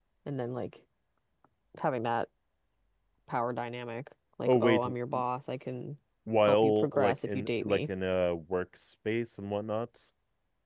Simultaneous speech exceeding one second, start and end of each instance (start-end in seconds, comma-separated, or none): 6.5-7.8